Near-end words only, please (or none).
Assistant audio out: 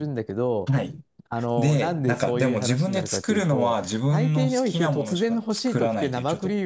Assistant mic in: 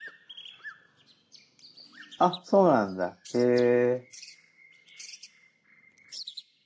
あ、そうなんだ。へえ、